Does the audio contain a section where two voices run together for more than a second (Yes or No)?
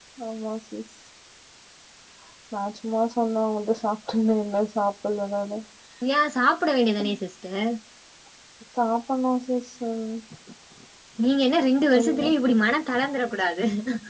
No